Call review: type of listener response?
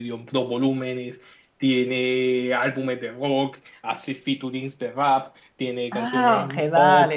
taking over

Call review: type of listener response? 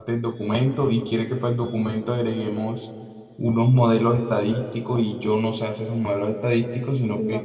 listening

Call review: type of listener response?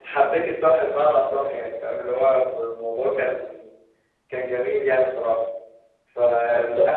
listening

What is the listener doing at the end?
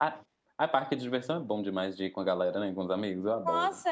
taking over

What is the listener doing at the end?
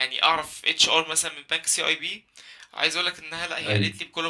listening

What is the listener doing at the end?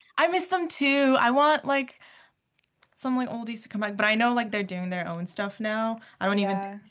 listening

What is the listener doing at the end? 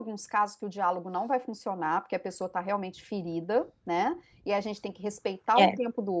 listening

